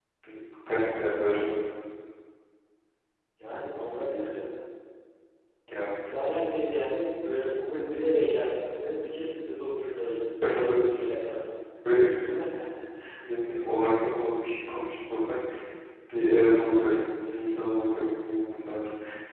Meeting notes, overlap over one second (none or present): none